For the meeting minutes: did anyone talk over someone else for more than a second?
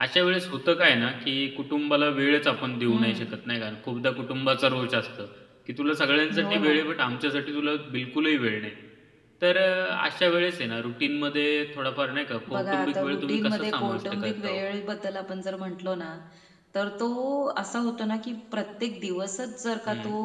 Yes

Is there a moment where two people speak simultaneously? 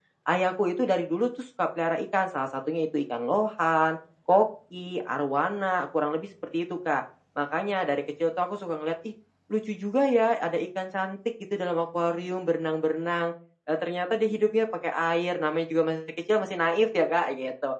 No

